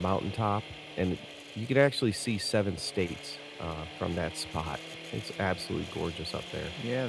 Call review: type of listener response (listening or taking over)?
taking over